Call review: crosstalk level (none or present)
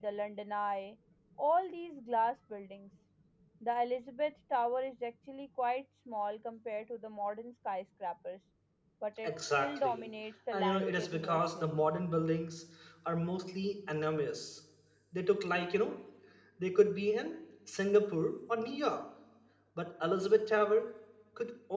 present